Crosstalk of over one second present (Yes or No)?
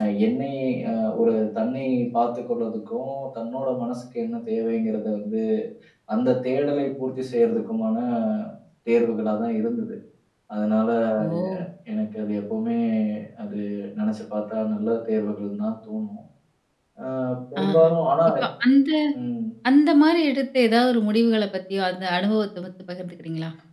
No